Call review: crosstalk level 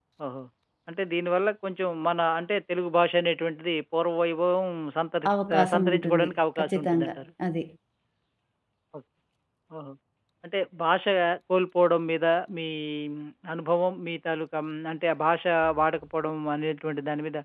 present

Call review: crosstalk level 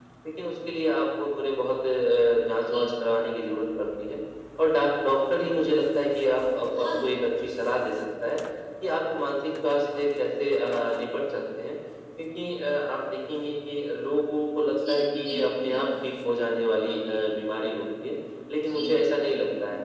present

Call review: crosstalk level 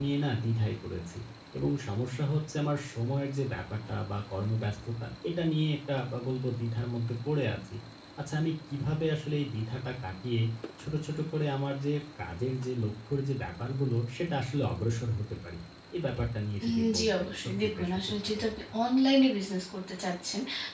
present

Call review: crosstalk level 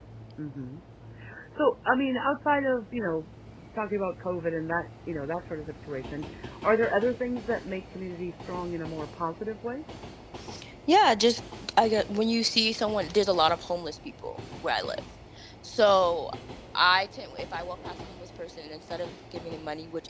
none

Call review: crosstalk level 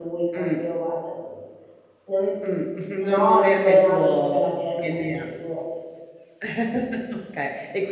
present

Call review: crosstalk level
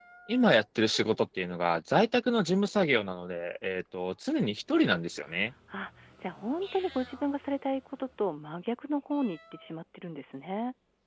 none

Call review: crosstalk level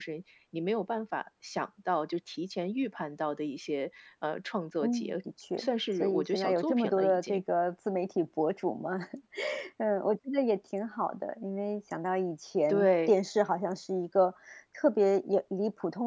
present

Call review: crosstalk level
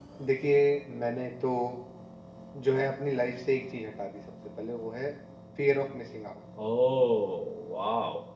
none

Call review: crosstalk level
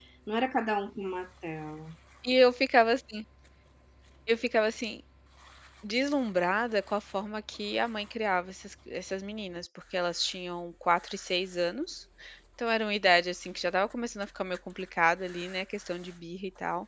none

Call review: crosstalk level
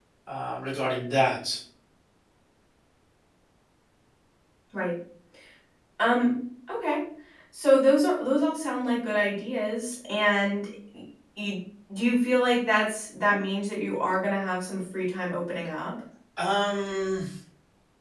none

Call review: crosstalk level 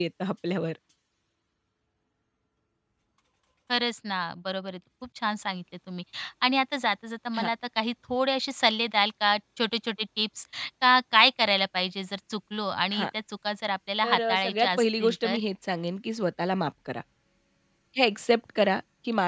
present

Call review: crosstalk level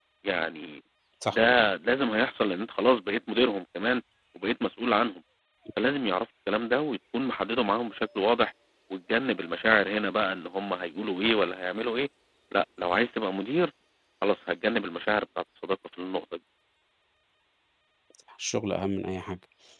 none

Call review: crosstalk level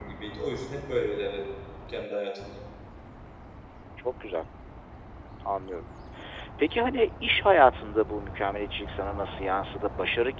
none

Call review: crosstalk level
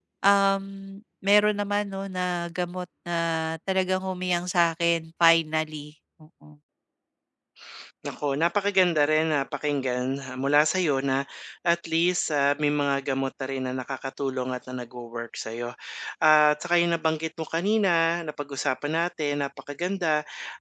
none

